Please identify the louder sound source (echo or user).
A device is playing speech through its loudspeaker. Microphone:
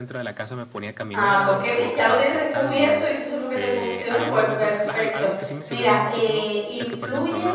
user